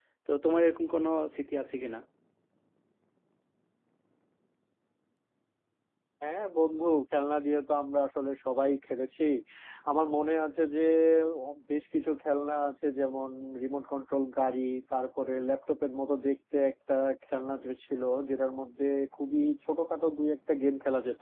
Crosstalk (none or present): none